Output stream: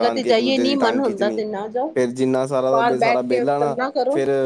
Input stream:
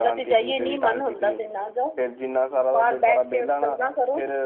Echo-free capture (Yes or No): No